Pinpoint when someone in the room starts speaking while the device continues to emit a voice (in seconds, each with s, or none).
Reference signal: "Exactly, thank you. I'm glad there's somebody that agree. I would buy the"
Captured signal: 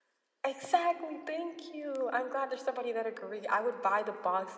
none